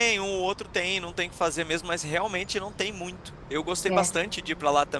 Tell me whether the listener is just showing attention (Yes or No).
Yes